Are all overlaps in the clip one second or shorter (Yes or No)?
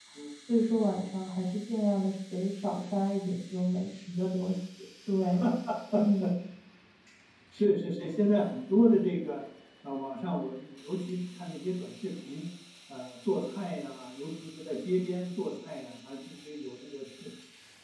Yes